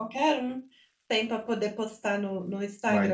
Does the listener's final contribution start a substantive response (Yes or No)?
Yes